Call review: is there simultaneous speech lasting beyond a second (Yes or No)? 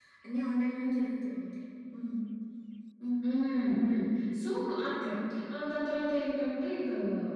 No